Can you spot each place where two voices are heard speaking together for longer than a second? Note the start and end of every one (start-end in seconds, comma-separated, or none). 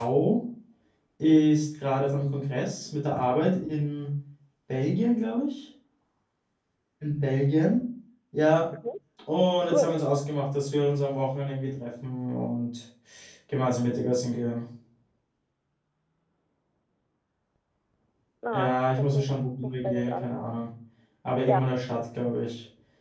18.5-20.4